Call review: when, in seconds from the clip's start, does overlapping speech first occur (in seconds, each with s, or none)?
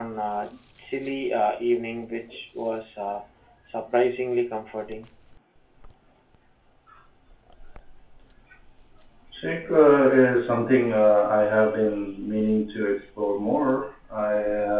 none